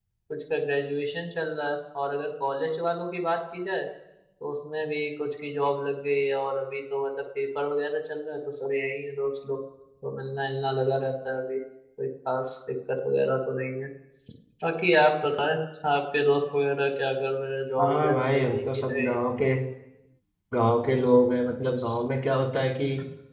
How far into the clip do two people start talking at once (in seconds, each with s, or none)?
17.8 s